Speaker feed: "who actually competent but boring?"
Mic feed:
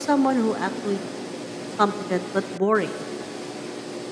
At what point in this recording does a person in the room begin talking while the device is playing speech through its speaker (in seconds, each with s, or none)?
none